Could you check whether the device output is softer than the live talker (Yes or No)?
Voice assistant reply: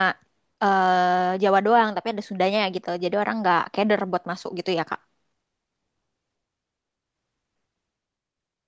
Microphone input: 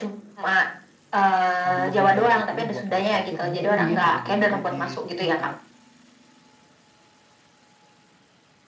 No